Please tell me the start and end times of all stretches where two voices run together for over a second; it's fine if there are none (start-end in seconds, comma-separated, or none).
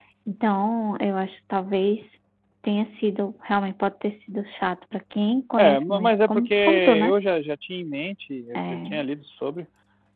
5.6-7.1